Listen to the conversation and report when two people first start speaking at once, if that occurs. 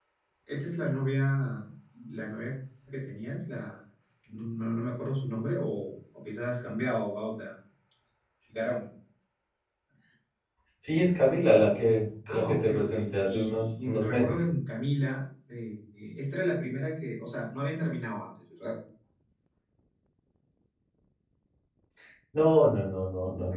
12.3 s

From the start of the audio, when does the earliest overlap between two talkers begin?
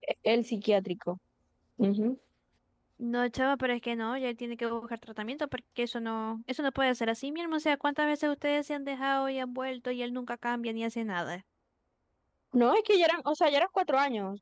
none

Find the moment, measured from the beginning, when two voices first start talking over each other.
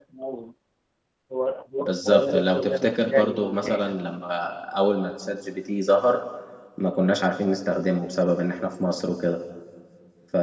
1.8 s

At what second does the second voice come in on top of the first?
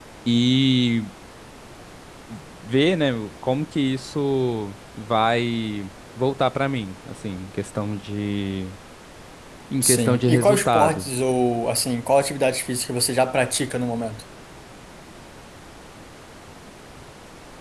9.8 s

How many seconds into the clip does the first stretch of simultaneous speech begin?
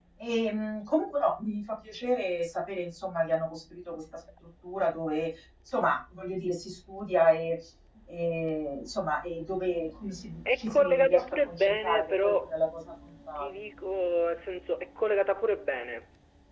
10.6 s

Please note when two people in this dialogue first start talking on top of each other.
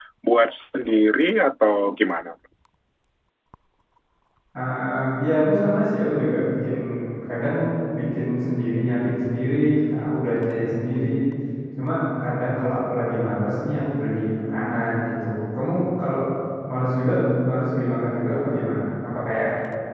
none

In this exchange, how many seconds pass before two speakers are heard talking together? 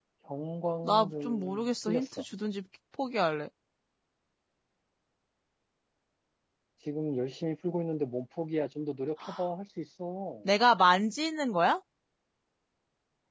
0.8 s

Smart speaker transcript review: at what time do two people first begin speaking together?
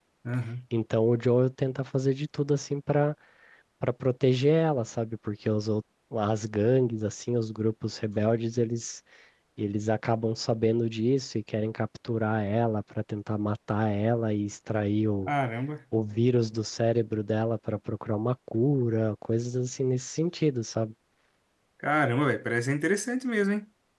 none

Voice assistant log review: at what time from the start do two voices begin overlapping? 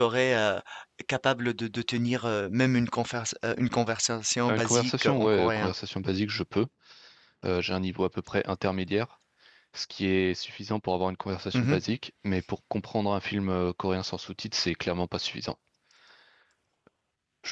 4.5 s

